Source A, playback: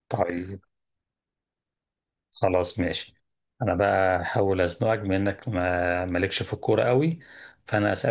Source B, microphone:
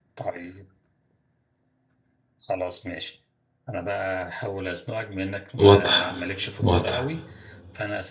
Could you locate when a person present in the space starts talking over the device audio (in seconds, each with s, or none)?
5.6 s